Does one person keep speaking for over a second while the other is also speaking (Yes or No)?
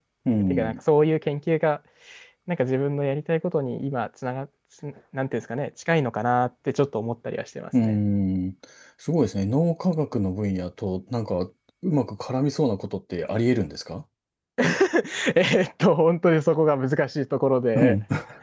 No